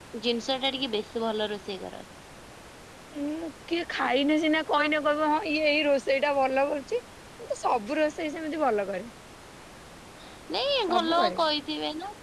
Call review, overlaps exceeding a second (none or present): none